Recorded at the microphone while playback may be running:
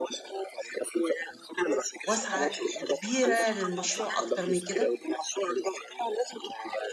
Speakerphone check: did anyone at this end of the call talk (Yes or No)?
Yes